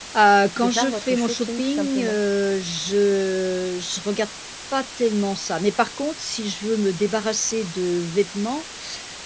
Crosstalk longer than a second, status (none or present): present